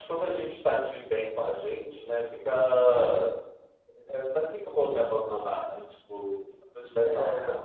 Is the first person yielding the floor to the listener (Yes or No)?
No